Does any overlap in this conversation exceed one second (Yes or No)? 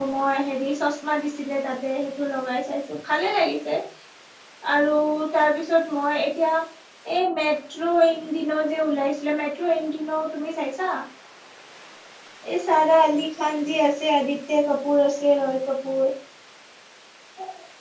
No